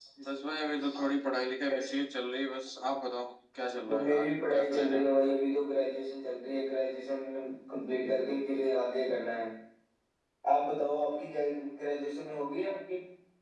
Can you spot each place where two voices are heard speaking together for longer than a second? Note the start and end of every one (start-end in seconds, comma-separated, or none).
3.9-5.4